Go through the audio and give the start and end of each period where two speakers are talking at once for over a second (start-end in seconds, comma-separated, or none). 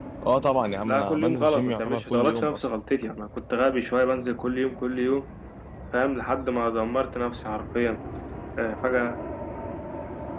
0.8-2.7